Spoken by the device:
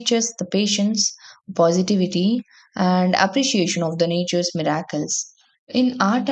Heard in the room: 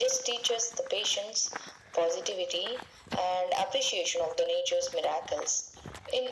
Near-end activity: none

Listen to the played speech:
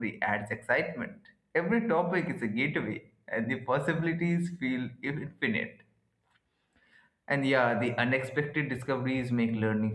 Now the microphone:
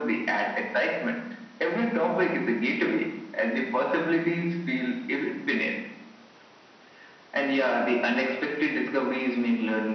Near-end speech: none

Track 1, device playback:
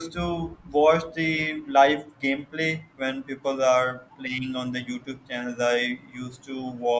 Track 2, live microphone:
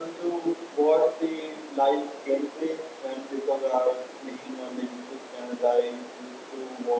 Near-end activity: none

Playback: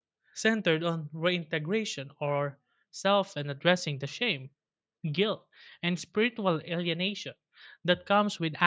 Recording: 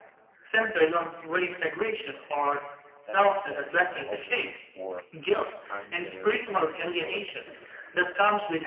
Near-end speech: present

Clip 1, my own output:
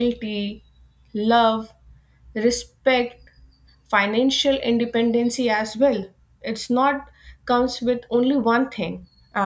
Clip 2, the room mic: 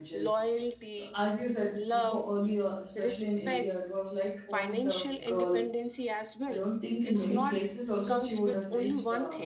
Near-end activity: present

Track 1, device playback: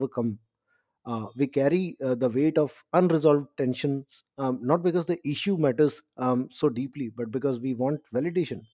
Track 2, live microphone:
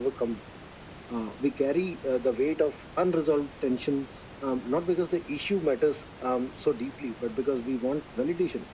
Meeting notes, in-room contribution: none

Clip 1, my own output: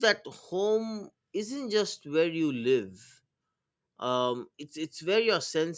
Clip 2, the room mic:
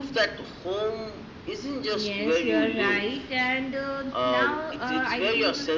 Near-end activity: present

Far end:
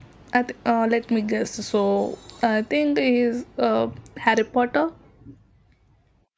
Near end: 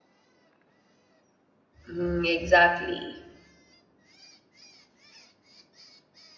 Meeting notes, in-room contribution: present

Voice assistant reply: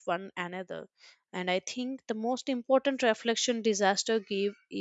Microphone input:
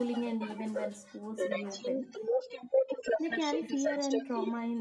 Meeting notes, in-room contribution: present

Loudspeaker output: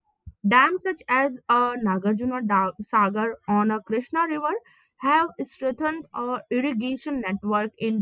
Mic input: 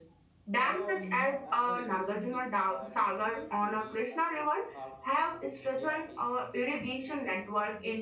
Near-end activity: present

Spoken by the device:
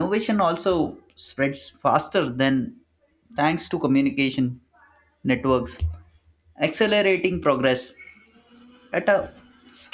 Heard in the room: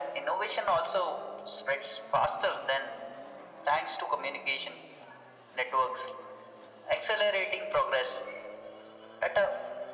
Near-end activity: none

